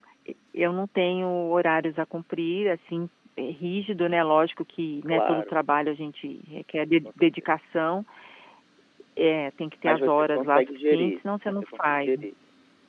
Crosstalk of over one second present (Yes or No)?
Yes